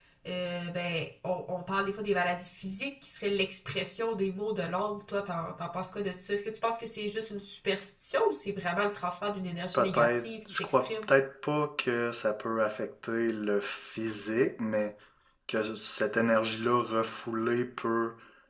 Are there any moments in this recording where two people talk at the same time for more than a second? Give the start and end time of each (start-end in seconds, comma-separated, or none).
9.7-11.1